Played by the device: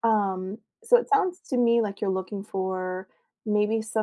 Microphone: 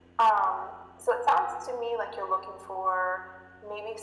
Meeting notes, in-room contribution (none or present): none